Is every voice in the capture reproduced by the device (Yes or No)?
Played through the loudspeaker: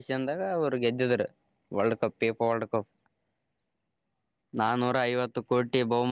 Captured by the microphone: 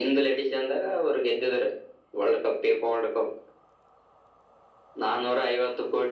Yes